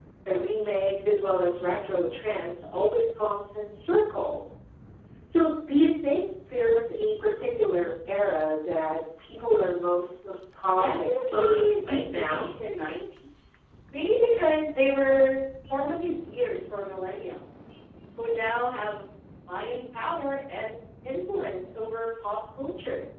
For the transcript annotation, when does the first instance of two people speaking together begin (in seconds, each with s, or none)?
10.8 s